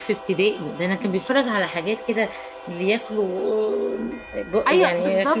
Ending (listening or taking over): taking over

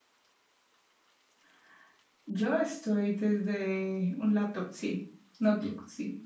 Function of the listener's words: taking over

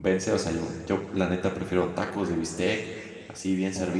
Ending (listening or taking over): listening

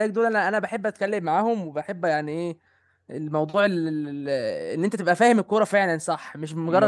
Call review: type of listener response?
listening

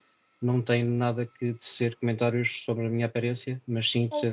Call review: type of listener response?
listening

